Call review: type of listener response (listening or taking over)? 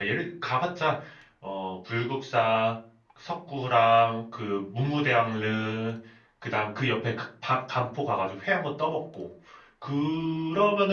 listening